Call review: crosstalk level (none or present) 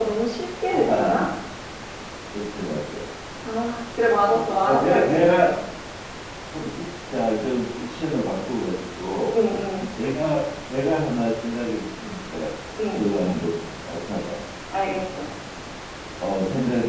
present